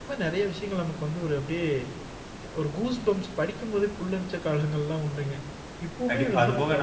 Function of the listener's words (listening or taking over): taking over